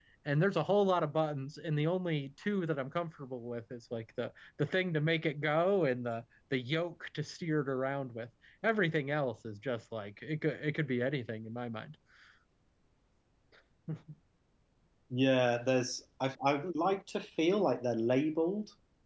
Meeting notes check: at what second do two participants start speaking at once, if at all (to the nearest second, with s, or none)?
none